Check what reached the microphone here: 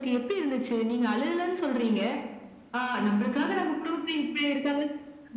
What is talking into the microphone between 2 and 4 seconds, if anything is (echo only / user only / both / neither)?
echo only